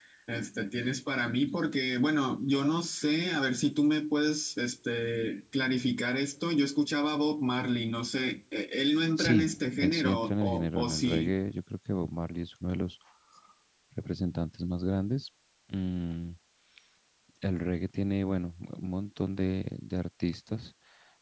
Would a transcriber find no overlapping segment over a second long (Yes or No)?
No